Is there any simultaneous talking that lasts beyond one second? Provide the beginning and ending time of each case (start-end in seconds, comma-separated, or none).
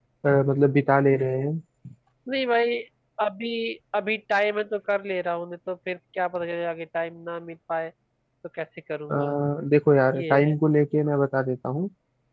none